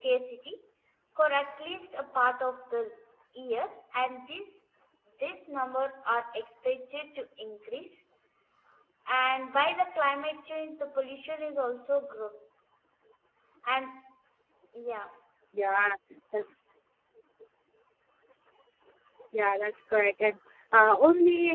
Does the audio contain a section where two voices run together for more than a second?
No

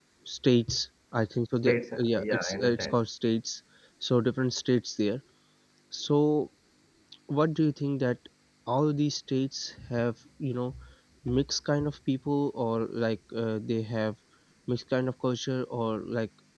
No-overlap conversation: No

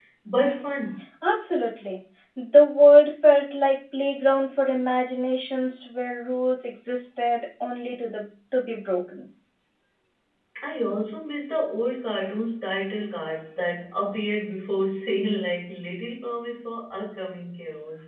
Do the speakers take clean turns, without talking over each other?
Yes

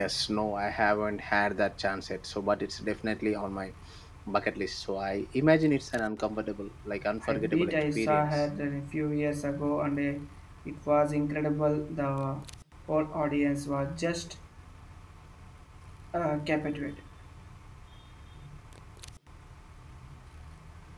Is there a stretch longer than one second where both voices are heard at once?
Yes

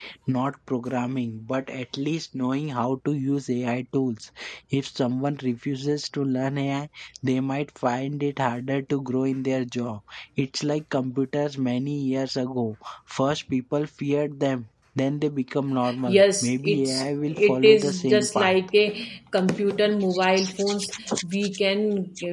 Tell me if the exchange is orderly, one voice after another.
No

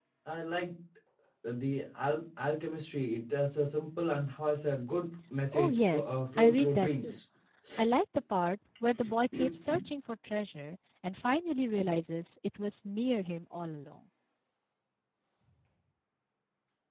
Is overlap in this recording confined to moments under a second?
No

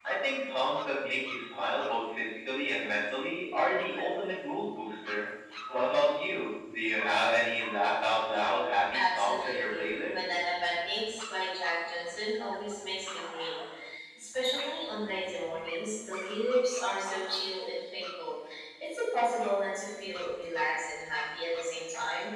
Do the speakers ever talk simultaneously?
Yes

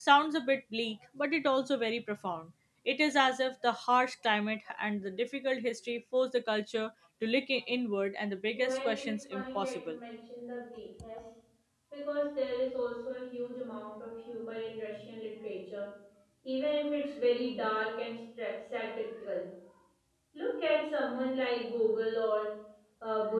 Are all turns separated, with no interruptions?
No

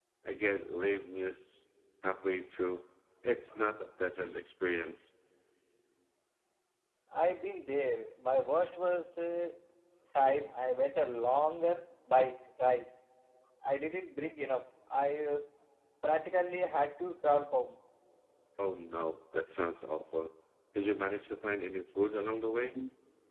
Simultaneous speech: No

